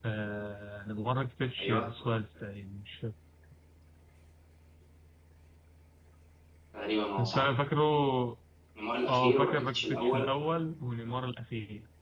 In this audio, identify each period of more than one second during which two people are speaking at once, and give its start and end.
9.1-10.3

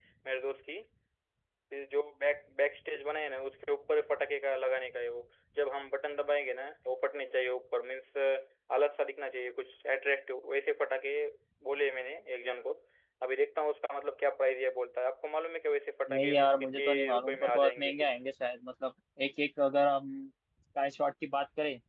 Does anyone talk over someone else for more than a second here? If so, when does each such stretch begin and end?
16.1-18.2

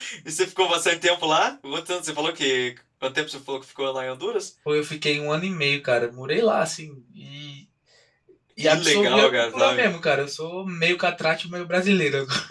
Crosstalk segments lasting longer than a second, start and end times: 8.6-9.9

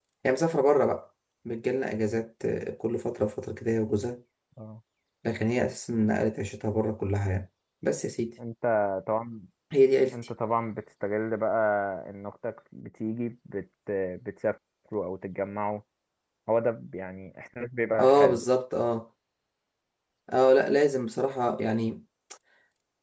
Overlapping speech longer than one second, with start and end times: none

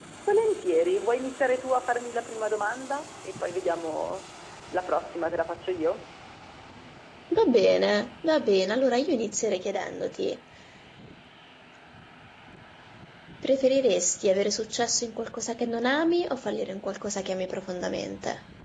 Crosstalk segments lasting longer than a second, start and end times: none

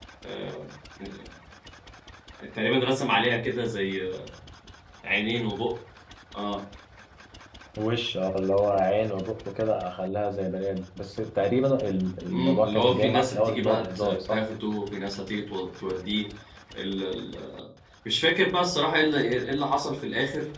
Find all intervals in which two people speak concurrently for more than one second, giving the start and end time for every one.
12.3-14.4

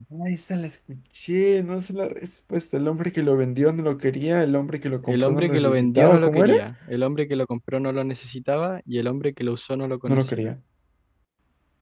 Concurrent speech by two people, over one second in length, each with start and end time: 5.0-6.5

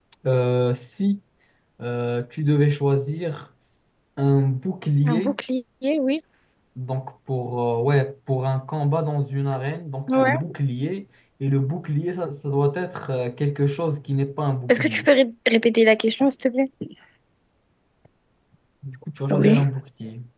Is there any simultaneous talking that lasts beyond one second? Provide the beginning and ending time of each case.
none

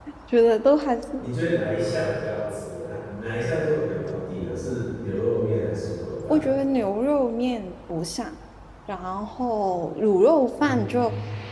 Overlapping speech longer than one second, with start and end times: none

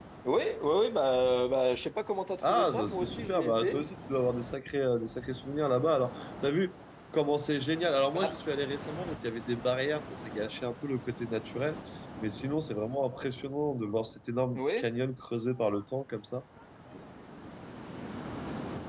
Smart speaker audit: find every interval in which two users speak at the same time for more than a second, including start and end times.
2.4-3.8

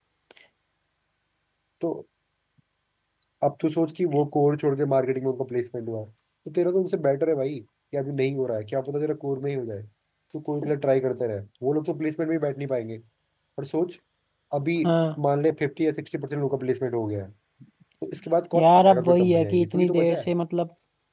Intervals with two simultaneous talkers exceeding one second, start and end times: 18.5-20.3

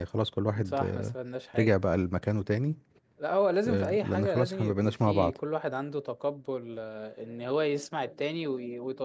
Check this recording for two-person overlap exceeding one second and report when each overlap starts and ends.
3.7-5.4

